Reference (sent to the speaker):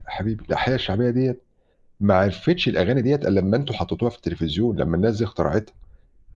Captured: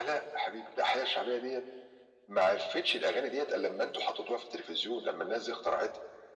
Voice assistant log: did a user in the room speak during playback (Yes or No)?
No